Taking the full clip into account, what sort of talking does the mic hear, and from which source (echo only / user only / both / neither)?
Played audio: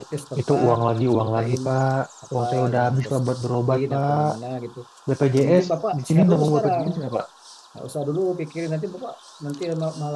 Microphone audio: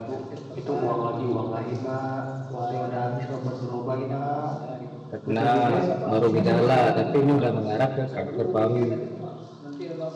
both